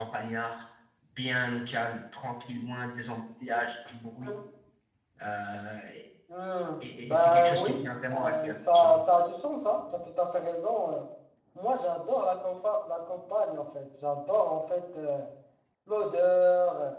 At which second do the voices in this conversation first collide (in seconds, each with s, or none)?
7.0 s